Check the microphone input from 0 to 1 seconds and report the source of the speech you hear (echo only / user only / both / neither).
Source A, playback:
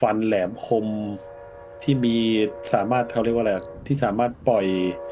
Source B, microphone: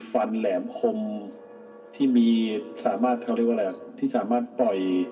echo only